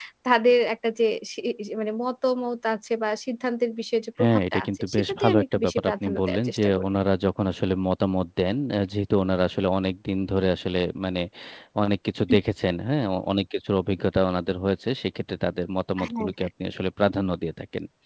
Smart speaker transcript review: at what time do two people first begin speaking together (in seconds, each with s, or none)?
4.2 s